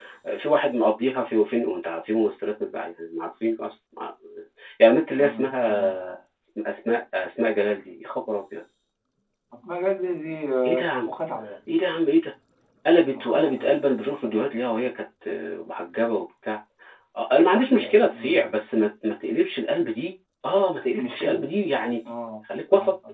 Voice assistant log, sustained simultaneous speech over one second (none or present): present